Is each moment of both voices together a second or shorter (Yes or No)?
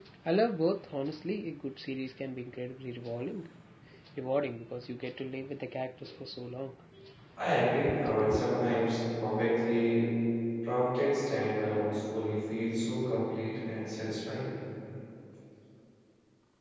Yes